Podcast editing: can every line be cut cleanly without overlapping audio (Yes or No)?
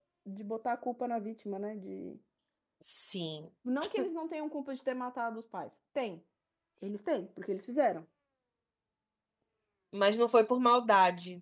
Yes